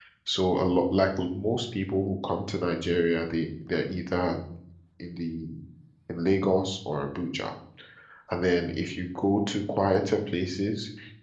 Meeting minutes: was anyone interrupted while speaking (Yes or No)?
No